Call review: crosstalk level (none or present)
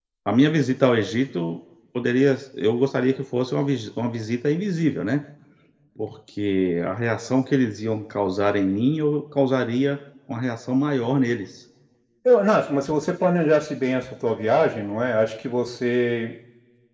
none